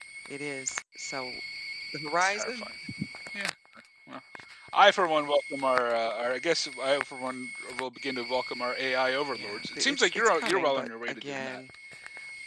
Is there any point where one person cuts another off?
Yes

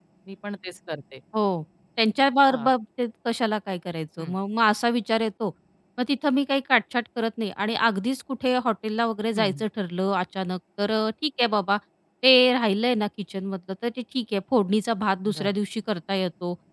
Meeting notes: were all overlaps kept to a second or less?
Yes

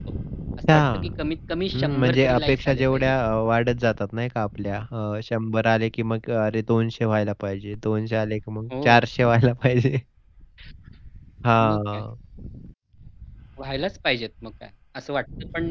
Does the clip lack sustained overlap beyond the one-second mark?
No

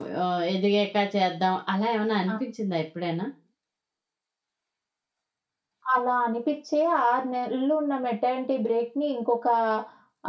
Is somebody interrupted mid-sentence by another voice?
No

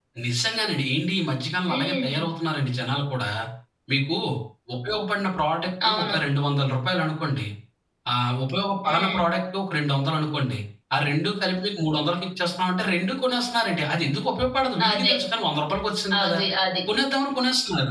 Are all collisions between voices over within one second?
Yes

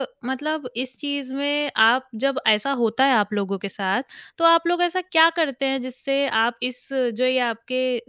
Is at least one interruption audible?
No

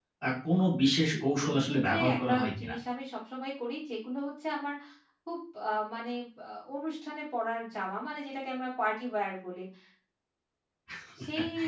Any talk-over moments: Yes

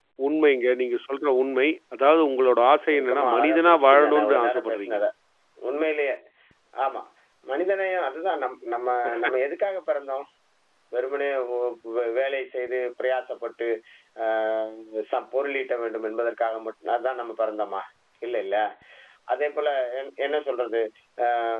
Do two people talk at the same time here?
Yes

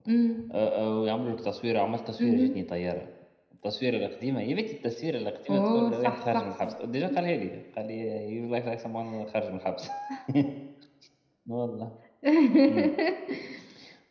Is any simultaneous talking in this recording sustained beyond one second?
Yes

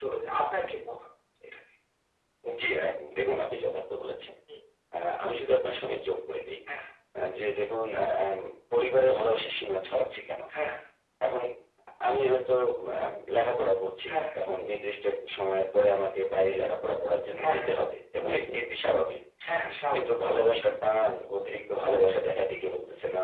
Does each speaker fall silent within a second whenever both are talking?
Yes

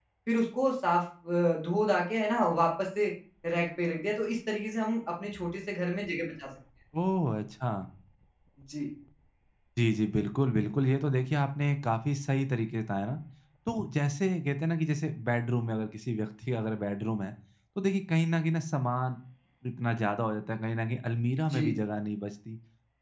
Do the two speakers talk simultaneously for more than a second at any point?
No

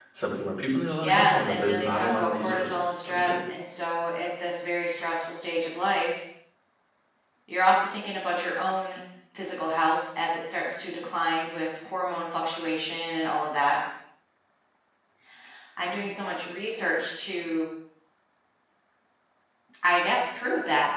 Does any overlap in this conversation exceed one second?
Yes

